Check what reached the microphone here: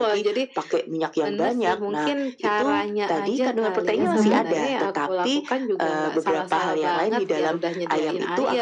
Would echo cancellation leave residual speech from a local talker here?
Yes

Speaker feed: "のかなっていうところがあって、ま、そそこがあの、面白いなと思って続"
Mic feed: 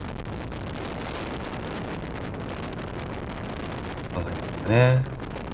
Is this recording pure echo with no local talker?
No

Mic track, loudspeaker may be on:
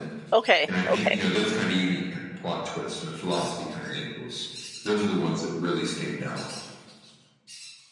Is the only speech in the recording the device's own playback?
No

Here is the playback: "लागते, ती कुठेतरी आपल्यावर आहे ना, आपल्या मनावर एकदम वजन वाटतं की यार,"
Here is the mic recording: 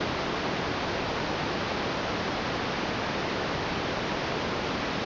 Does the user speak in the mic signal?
No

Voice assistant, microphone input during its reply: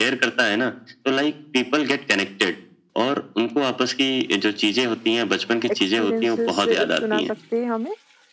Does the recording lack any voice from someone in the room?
No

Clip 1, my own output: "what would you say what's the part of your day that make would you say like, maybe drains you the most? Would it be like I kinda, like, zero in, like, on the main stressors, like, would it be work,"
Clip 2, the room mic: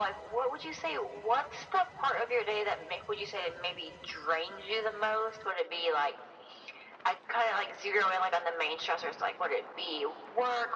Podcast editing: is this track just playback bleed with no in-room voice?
Yes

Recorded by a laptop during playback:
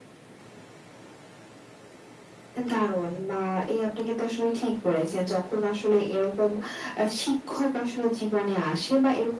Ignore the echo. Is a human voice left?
No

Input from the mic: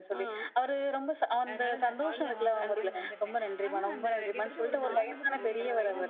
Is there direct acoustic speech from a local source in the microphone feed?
Yes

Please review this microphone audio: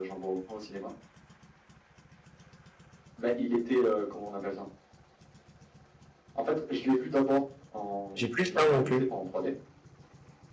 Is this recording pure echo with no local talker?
No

